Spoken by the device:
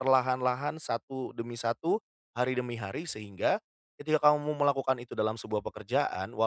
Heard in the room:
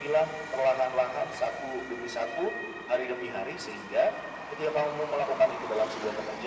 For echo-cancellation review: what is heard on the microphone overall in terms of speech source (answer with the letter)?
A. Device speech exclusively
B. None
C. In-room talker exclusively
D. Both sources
A